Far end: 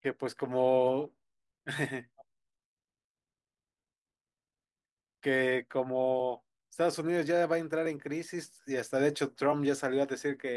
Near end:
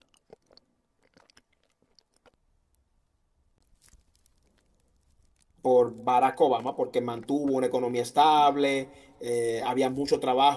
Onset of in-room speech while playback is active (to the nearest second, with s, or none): 6 s